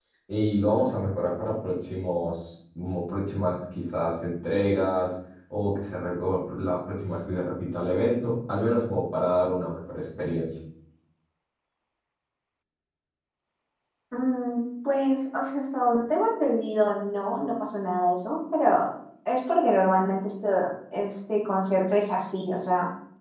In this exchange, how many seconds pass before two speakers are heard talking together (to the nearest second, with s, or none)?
none